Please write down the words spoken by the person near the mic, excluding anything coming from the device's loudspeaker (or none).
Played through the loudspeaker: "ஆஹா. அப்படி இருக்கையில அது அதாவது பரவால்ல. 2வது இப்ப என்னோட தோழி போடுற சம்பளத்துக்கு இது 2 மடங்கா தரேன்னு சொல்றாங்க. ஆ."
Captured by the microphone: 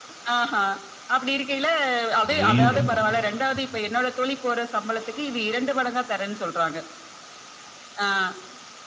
அடேங்கப்பா! ம்.